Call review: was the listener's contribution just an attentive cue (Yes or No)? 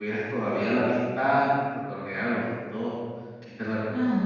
No